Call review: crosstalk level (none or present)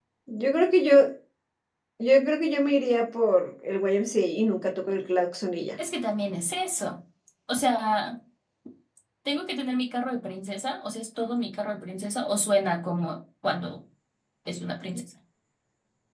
none